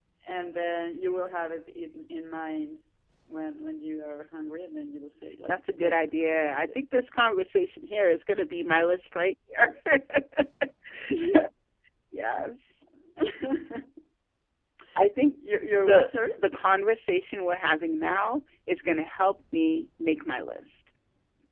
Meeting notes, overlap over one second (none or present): present